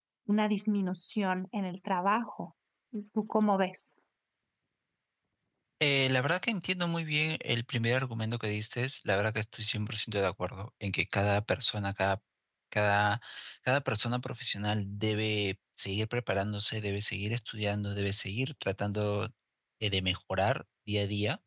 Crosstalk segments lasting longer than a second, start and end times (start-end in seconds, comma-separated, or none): none